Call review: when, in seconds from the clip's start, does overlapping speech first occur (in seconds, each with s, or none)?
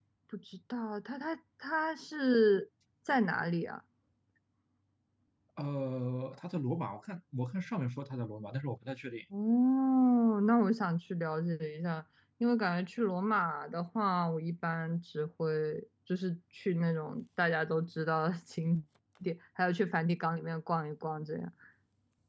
none